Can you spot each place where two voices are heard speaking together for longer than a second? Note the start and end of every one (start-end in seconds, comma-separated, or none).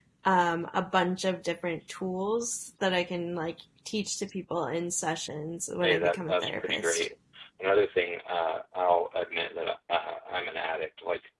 5.8-7.1